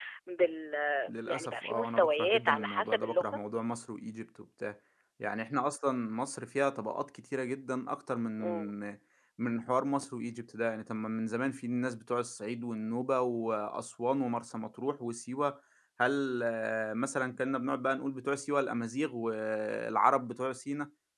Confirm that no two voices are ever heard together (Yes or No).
No